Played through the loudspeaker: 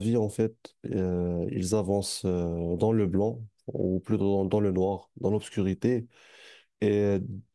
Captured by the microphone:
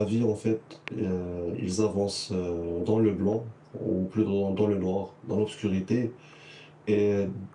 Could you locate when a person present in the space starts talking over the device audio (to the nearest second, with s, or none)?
none